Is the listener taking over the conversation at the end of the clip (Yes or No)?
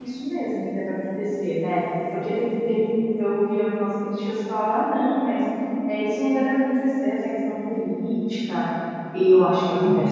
Yes